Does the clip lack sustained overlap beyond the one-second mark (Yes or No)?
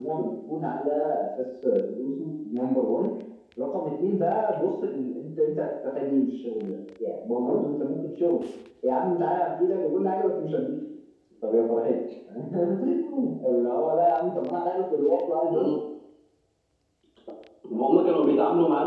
Yes